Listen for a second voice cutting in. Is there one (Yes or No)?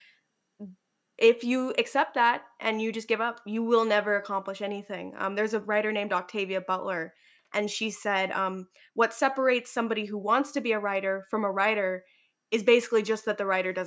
No